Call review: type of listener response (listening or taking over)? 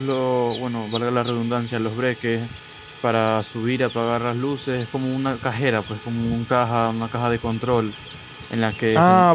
taking over